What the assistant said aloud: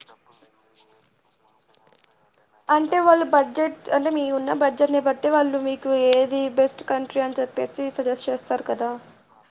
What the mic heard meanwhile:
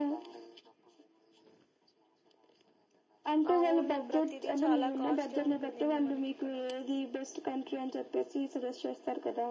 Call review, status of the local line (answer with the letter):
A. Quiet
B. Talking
B